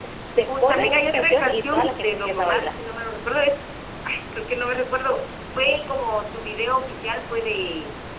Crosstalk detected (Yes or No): Yes